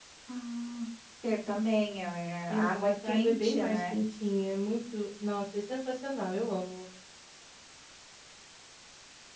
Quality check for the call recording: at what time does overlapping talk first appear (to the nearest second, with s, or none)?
2 s